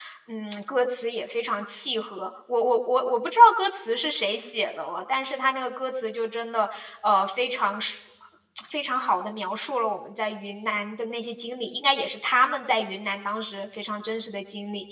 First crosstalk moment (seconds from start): none

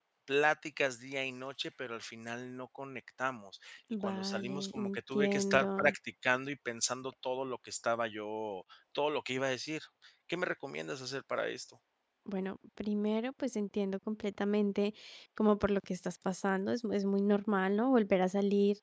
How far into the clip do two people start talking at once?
3.9 s

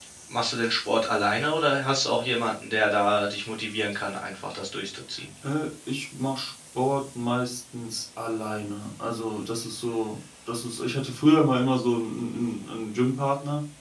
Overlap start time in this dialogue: none

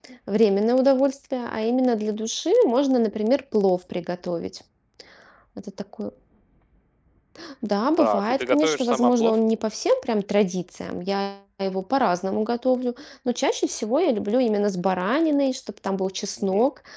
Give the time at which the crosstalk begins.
8.0 s

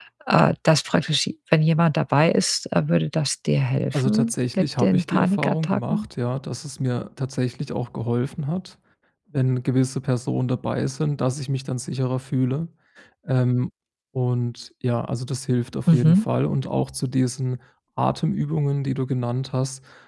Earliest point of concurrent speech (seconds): 3.9 s

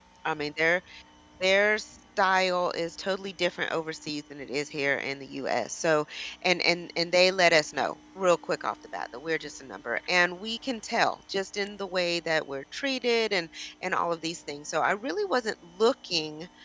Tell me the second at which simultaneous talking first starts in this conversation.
none

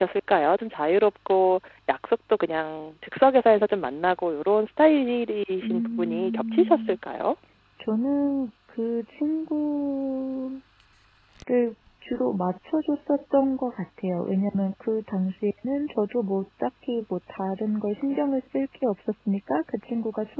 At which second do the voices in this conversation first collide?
5.6 s

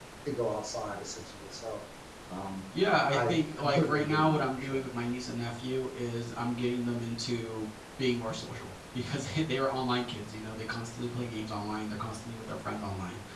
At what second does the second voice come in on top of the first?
2.9 s

